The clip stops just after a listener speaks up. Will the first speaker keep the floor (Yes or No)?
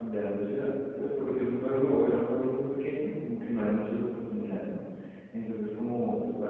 Yes